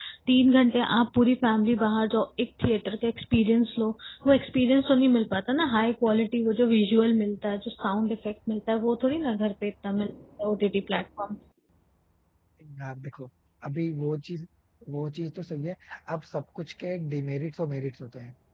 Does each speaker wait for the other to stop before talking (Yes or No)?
Yes